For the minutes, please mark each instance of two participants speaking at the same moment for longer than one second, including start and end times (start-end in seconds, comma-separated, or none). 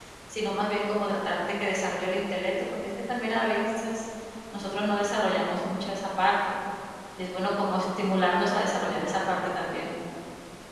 none